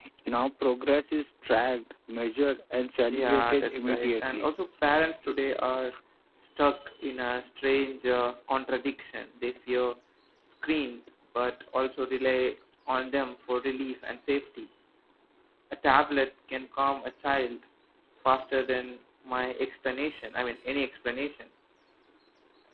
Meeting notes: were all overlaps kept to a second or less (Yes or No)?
No